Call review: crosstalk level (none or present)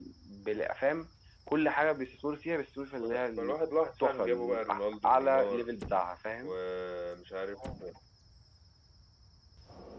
present